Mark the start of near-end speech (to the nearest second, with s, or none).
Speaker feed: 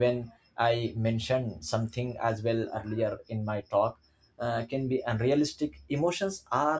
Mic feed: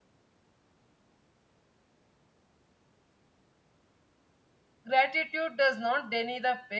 5 s